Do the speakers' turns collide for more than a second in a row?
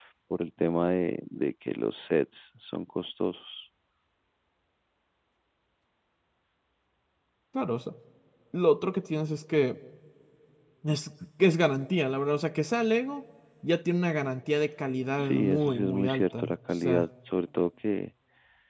Yes, from 15.2 s

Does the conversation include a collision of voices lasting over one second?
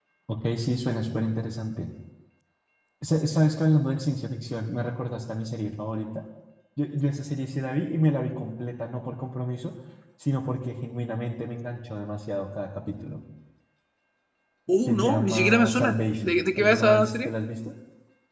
Yes, from 14.8 s

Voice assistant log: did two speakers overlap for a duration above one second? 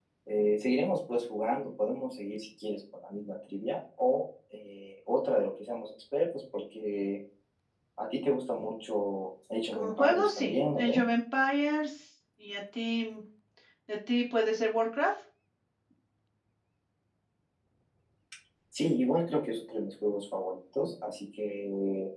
Yes, from 9.7 s

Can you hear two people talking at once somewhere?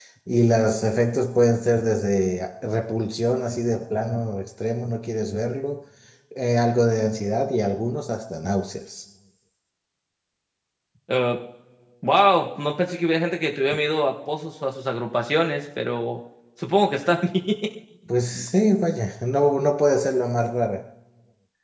No

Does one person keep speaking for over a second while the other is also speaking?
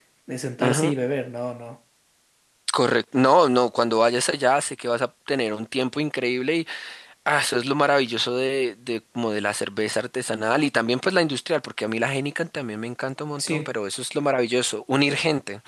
No

